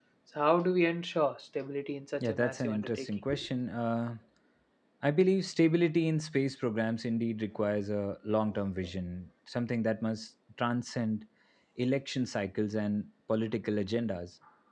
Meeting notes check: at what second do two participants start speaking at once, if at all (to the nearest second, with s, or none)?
2 s